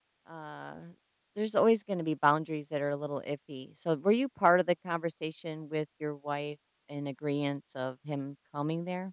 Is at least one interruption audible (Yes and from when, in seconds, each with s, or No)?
No